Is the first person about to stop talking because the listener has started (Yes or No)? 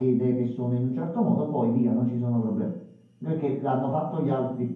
No